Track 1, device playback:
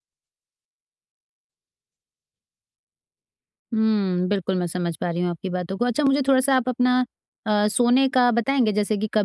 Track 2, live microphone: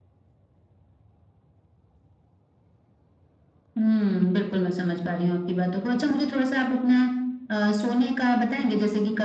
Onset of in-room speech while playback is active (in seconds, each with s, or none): none